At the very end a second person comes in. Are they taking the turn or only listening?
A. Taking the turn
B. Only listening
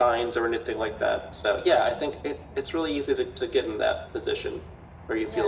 B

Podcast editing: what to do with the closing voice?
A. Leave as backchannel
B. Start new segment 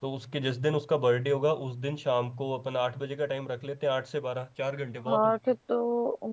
B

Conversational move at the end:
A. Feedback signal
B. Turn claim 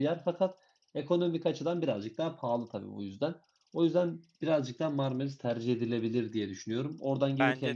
A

